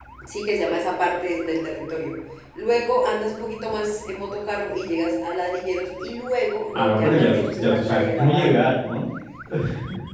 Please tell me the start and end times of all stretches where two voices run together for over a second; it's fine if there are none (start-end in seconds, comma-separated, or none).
6.8-8.7